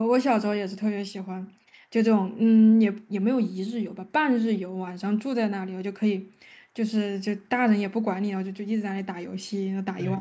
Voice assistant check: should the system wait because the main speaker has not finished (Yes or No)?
No